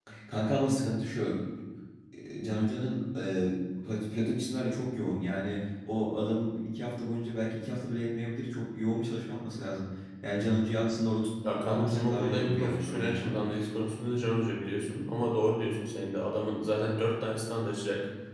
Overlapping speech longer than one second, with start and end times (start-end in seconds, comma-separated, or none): 11.6-13.3